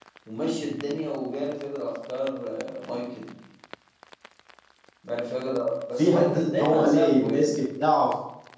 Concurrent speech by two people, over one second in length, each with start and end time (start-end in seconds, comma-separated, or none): 6.0-7.6